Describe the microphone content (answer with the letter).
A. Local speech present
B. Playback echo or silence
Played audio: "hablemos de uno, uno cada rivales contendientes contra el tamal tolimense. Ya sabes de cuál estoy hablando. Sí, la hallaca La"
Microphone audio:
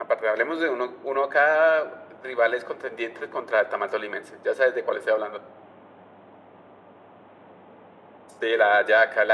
B